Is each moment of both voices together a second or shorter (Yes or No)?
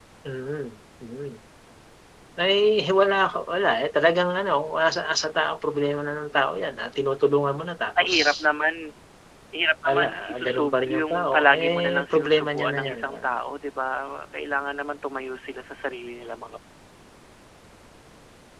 No